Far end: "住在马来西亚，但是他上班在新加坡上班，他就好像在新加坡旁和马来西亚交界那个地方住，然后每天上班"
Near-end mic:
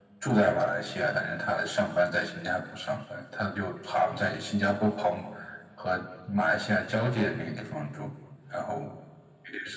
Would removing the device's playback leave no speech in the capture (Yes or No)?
Yes